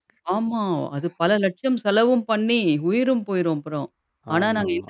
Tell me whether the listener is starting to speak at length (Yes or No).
No